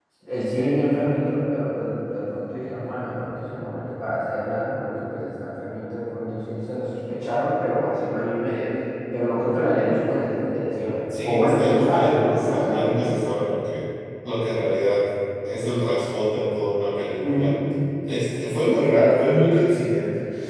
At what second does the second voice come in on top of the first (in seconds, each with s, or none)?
11.2 s